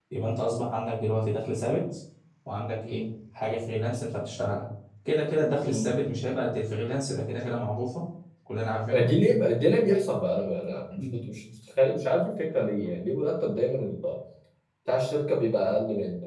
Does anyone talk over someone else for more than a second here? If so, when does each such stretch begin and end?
none

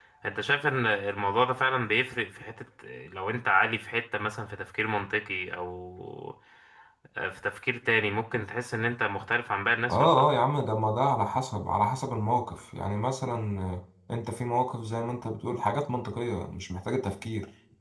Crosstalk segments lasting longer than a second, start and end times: none

